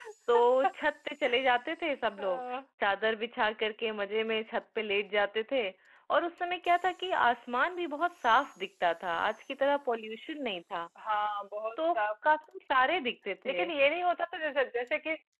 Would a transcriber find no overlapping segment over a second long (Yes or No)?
Yes